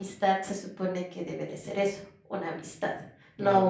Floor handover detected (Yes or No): No